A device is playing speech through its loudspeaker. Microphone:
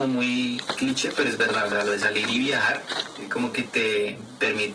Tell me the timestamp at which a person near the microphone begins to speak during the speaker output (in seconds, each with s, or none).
none